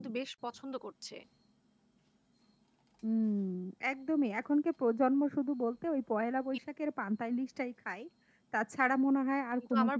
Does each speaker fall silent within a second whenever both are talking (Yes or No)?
Yes